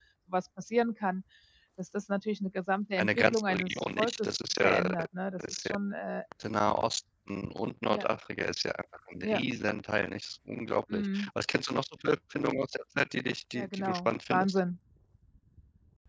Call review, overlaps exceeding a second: present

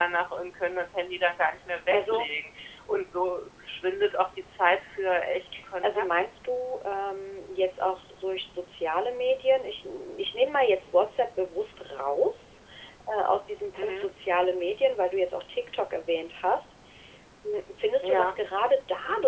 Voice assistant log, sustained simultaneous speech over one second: none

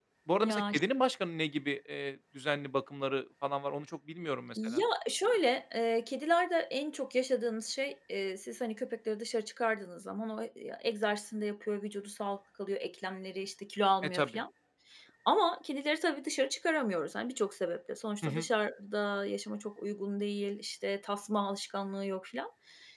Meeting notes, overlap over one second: none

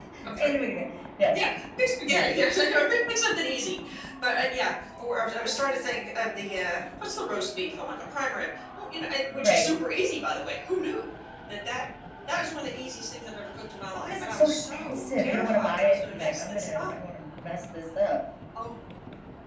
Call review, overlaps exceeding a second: present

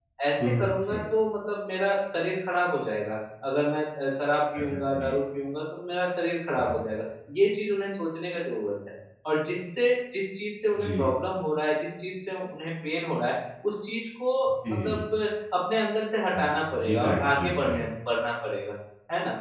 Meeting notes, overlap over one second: present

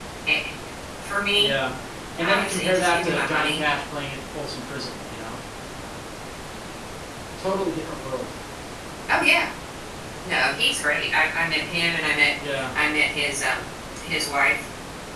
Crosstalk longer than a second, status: present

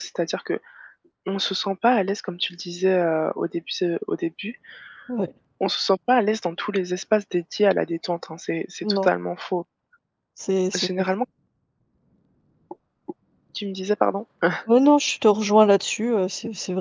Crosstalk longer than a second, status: none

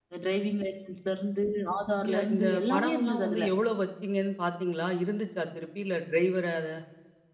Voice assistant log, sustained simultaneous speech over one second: present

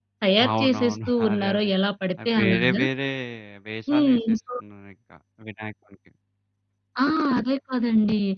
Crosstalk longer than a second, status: present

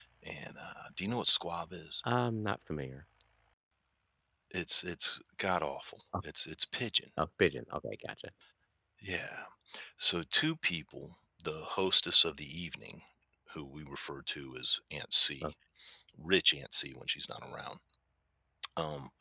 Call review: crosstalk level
none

